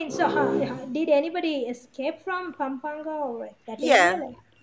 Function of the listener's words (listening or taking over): taking over